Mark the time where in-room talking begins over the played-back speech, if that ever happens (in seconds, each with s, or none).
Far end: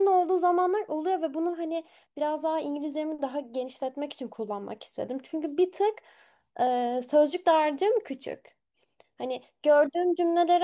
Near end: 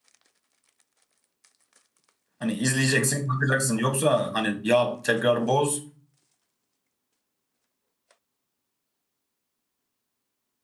2.4 s